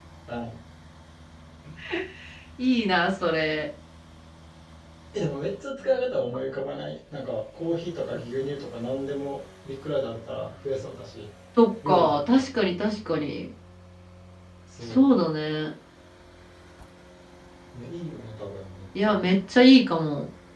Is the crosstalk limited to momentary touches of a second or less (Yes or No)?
Yes